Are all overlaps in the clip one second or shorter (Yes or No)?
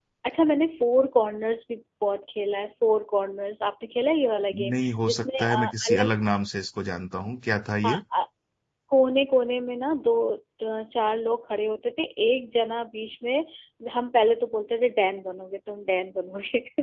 No